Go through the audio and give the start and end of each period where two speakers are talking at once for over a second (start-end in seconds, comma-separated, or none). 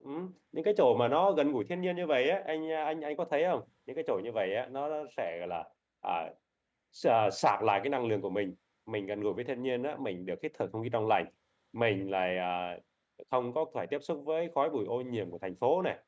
none